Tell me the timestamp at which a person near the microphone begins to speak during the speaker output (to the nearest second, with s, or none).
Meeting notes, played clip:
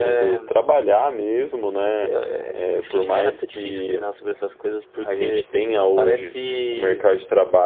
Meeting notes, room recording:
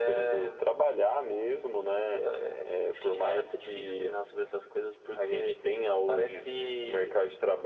none